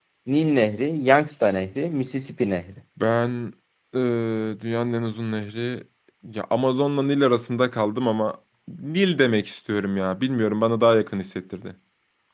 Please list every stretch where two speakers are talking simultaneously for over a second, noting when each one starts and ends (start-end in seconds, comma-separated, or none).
none